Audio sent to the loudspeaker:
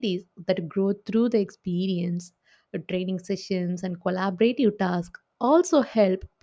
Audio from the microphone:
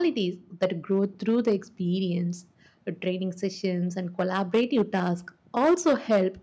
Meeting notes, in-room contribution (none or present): none